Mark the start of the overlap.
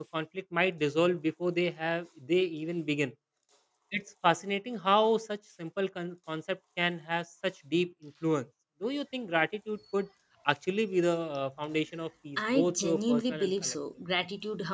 12 s

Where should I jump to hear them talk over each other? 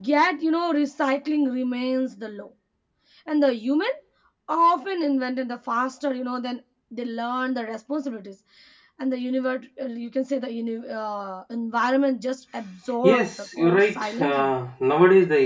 13 s

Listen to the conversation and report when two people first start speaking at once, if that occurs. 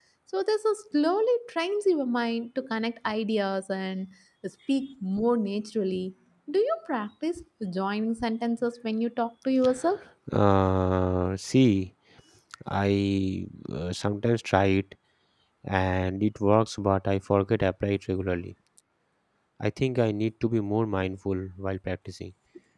none

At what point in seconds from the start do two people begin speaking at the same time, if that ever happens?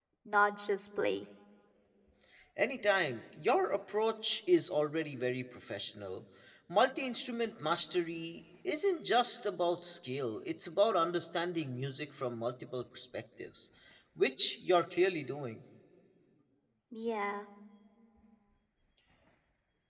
none

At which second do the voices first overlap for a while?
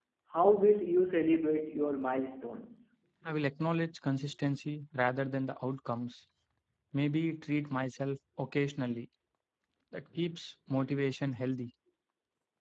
none

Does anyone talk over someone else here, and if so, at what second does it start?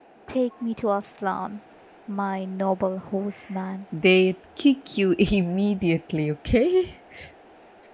none

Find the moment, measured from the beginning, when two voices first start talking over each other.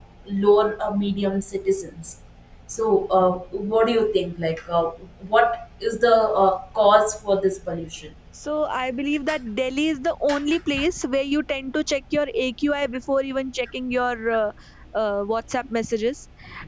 none

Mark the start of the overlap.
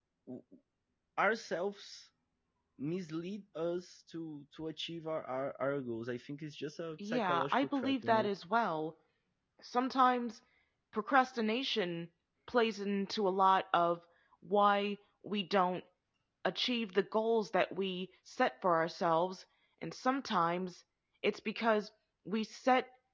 7 s

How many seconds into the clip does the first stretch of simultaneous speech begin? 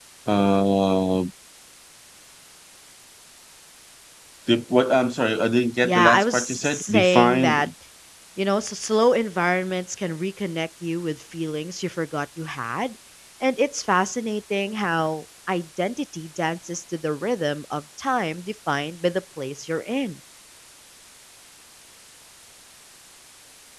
6 s

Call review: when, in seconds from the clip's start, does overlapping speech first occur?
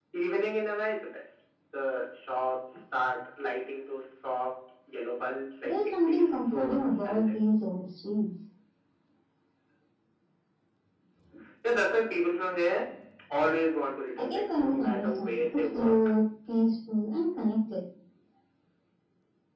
6 s

